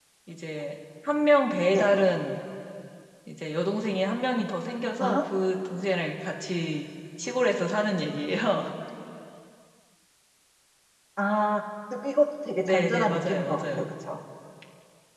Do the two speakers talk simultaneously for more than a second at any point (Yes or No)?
Yes